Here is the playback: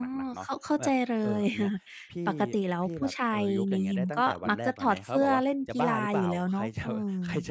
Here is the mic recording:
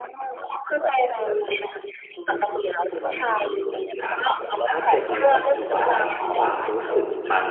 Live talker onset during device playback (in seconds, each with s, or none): 2.9 s